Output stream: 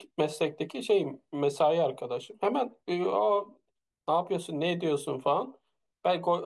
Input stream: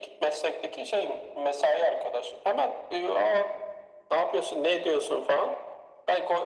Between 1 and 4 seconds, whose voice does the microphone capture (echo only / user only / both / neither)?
echo only